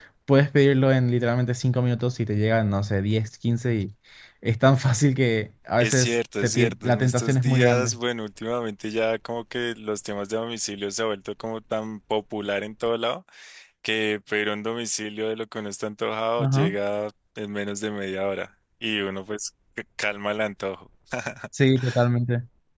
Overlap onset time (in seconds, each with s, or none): 5.8 s